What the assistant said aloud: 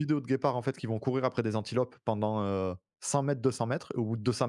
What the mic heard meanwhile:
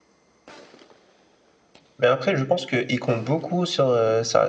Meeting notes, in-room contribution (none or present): present